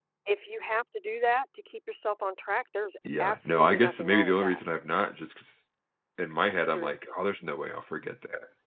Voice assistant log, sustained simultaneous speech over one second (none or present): present